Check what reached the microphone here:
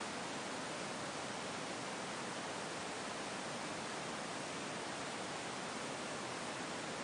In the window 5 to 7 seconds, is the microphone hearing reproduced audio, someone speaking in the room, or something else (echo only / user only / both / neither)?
neither